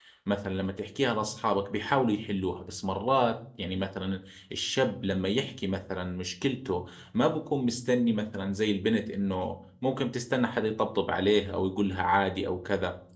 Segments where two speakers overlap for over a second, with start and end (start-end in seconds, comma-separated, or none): none